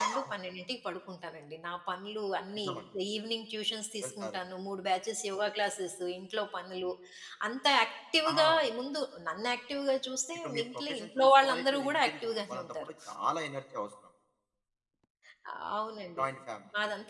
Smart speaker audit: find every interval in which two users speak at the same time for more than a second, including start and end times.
10.4-12.9

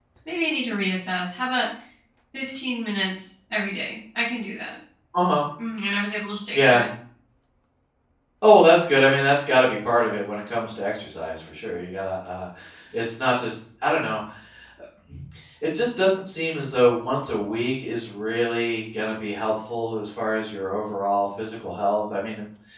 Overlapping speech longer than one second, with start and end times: none

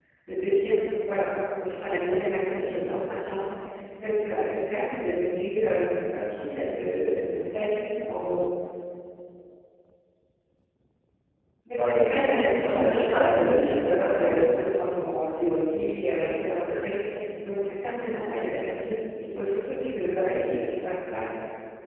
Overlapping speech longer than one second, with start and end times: 11.8-14.6

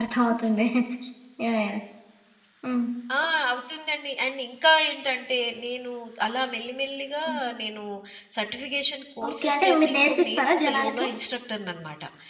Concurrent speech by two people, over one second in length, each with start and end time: 9.3-11.1

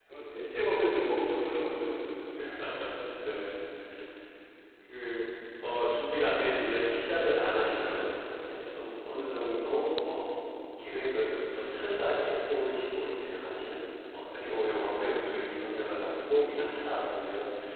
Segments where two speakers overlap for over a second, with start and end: none

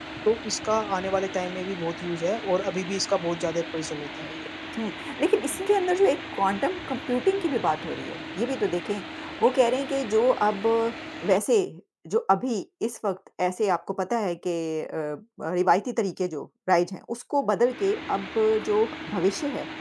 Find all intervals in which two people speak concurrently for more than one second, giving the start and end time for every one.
none

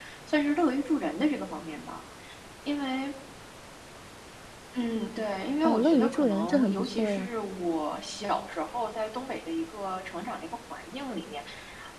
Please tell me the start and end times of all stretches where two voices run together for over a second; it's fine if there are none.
5.6-7.3

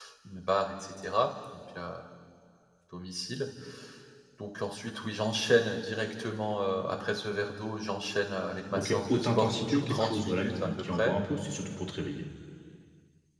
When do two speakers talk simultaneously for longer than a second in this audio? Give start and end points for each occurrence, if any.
8.7-11.1

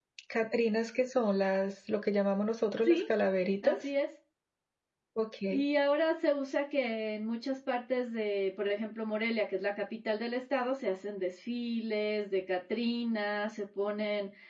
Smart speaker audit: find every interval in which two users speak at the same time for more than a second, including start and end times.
none

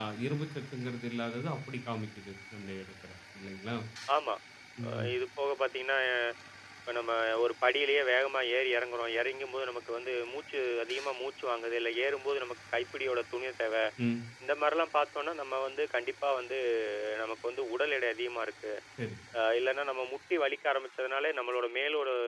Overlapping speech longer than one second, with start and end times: none

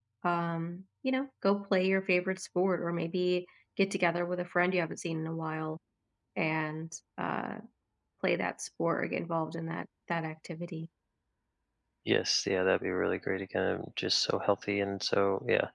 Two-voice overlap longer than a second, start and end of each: none

